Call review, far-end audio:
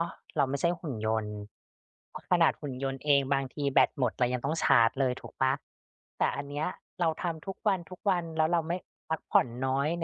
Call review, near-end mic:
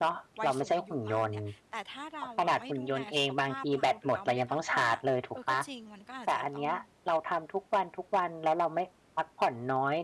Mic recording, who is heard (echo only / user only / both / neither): both